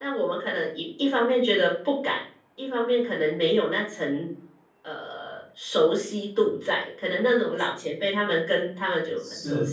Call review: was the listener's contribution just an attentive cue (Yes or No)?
Yes